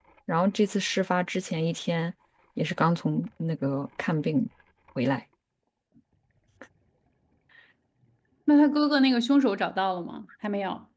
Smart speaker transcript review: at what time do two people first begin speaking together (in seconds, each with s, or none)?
none